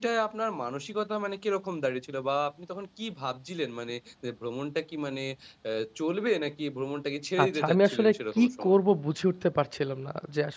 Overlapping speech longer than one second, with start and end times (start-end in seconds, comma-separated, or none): 7.4-8.8